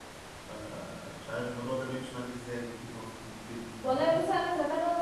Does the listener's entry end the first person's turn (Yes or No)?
Yes